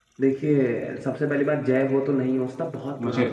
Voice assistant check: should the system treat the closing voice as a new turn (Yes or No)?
No